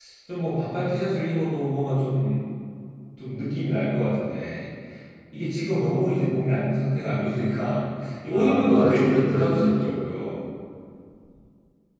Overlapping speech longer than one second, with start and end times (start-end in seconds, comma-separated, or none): 8.3-9.9